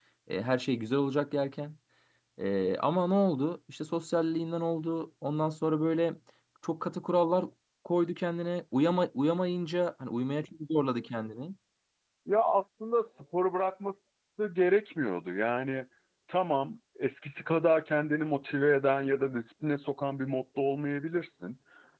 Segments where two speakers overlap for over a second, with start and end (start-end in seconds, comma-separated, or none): none